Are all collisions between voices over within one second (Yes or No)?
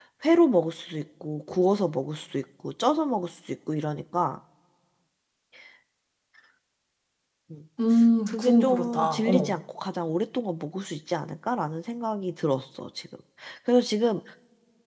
No